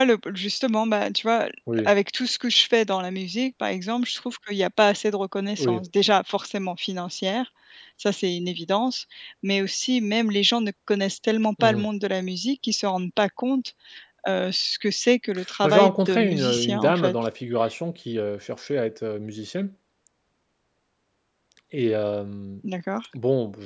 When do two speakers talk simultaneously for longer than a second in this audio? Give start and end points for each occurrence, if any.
15.6-17.2

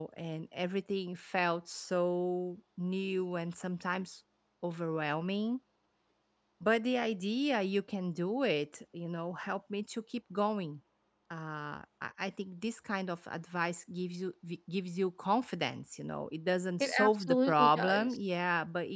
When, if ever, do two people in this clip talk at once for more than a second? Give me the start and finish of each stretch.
16.8-18.1

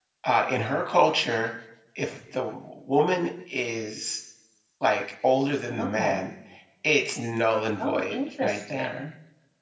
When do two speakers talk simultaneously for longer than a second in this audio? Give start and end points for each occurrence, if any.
7.8-9.1

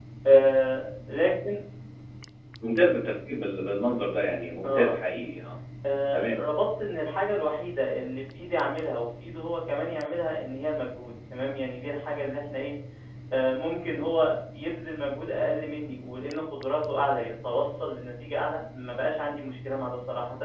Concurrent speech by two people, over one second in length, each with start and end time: none

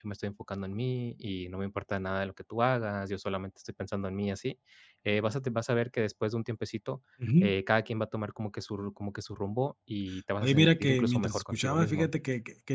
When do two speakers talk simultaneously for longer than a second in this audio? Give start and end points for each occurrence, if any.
10.4-12.1

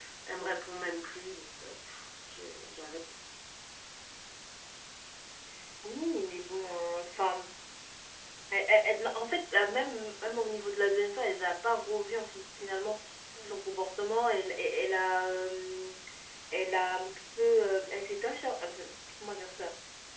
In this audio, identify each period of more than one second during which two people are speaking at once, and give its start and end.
none

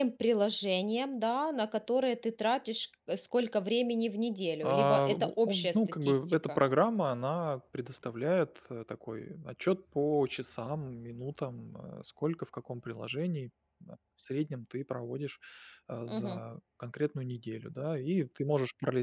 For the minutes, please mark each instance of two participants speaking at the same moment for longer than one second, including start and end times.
4.6-6.6

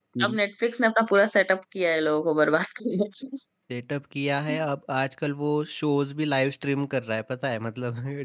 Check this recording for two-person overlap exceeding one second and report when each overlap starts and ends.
none

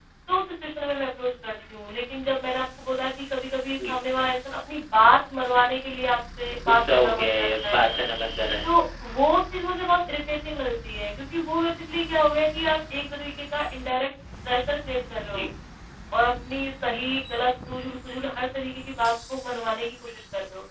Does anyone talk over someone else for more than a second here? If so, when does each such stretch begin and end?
6.7-7.9

